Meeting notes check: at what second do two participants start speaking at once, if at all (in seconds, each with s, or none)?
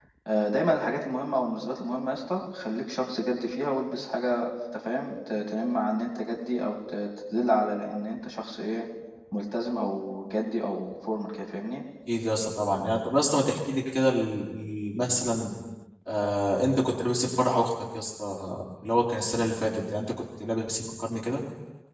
none